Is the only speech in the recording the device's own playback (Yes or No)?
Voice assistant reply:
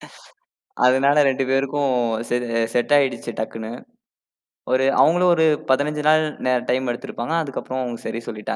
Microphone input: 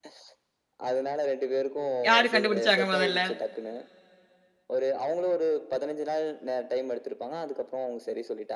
No